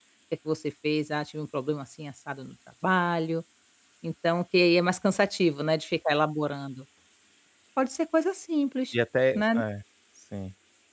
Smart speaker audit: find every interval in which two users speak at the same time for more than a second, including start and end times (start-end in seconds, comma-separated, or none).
none